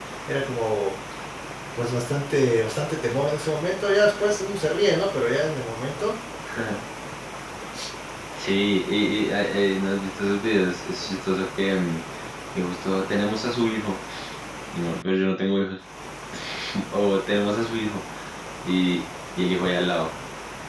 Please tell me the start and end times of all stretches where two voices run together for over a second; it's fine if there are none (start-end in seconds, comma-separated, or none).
none